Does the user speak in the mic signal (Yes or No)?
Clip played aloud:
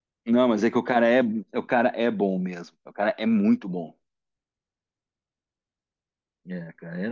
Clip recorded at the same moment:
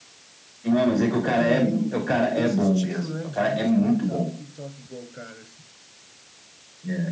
Yes